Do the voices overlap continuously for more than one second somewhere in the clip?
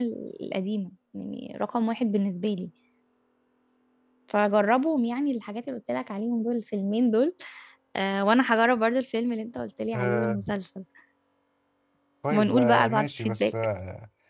Yes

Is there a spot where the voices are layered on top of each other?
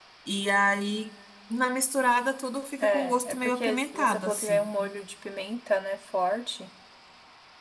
Yes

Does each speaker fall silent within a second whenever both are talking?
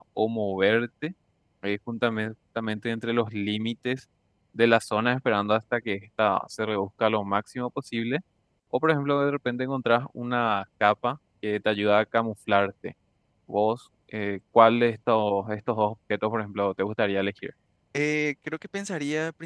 Yes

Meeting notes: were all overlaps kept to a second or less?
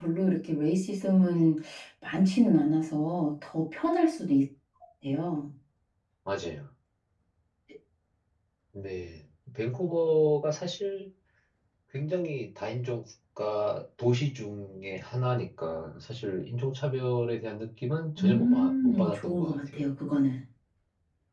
No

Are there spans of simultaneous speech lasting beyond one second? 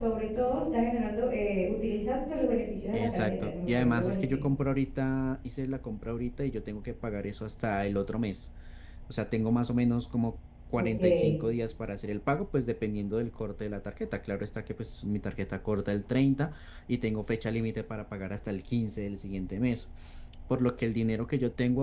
Yes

